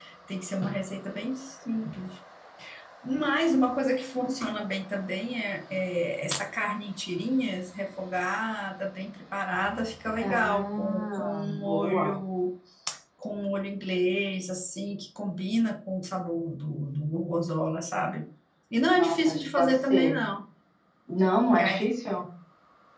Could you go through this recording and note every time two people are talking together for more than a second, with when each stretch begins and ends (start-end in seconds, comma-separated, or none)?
10.2-12.2, 18.9-20.2